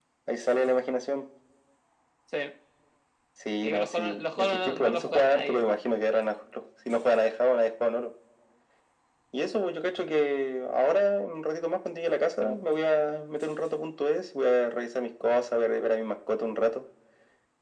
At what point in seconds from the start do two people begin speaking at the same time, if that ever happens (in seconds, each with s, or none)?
3.6 s